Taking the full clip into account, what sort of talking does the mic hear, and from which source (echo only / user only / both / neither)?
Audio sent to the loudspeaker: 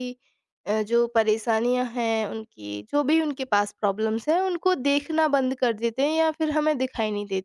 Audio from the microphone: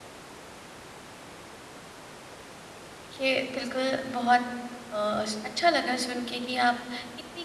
user only